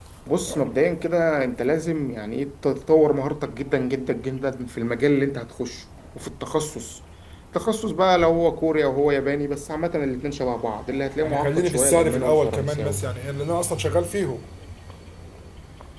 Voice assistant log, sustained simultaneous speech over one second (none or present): present